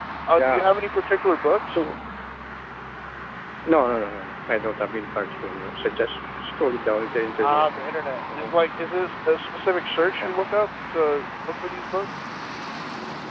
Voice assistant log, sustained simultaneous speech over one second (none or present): none